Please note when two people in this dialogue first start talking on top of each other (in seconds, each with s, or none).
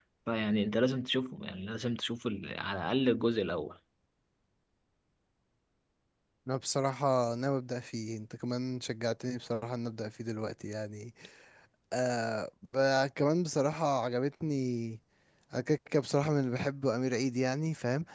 none